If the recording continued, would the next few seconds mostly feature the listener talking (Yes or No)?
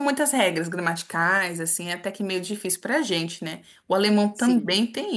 No